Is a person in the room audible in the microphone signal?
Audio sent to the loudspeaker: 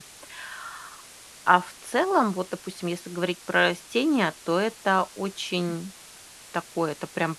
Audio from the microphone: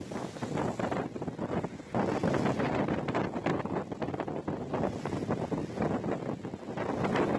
No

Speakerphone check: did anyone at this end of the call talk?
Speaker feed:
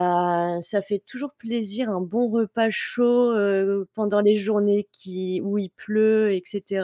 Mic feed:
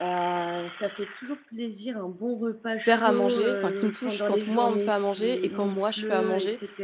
Yes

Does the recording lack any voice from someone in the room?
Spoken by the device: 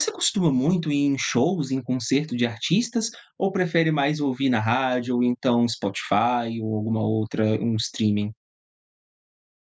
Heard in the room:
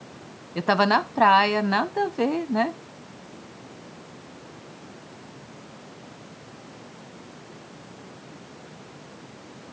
No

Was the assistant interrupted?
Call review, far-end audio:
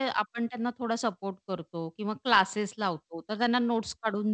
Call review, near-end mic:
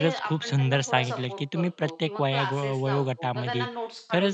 Yes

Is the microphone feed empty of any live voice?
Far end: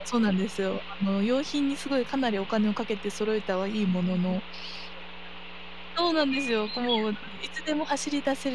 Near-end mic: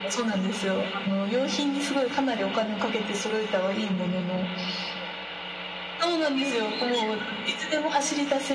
Yes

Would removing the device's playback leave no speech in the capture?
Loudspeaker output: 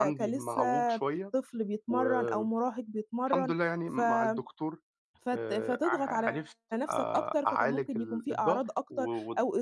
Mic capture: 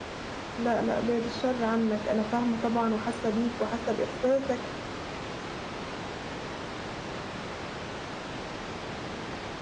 No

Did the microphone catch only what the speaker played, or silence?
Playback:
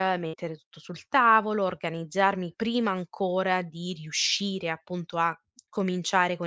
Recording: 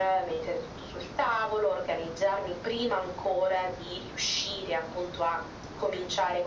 Yes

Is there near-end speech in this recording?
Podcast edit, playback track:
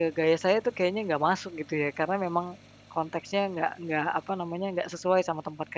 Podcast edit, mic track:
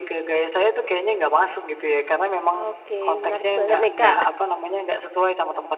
Yes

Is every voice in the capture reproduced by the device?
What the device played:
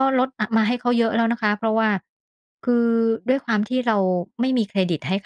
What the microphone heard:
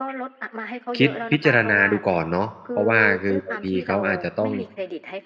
No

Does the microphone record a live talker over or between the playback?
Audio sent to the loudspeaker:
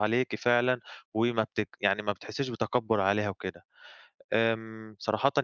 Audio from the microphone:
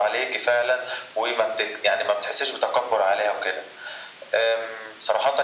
No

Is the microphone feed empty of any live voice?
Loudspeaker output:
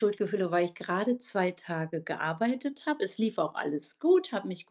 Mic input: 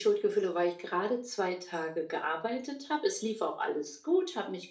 Yes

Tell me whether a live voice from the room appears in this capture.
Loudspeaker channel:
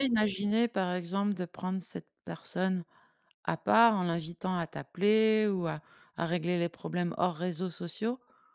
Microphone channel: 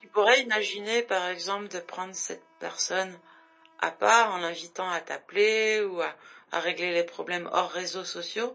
No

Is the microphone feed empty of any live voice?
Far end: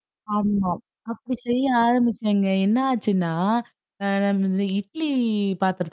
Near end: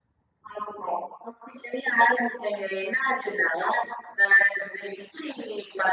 Yes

